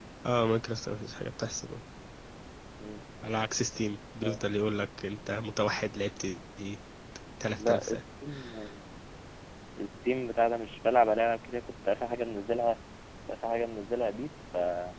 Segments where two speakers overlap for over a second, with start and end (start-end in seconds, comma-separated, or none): none